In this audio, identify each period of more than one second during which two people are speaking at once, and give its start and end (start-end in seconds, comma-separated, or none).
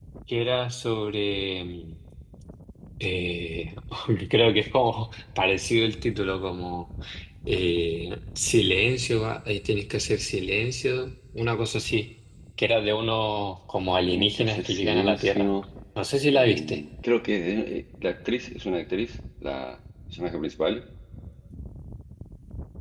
14.1-15.5